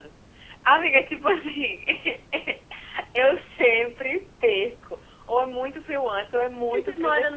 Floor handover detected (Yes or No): Yes